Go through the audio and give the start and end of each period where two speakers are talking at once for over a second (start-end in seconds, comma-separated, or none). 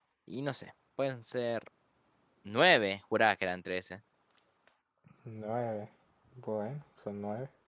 none